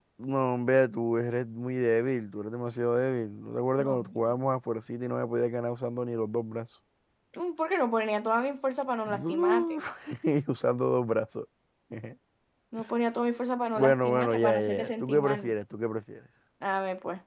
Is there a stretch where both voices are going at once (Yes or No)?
Yes